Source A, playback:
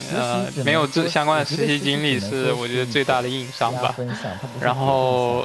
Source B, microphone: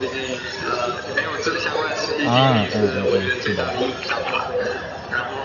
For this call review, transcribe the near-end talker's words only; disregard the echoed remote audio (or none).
啊，嗯嗯嗯，是的，